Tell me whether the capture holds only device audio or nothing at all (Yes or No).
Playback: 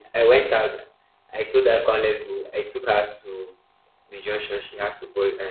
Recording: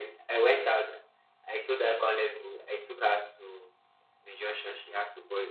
Yes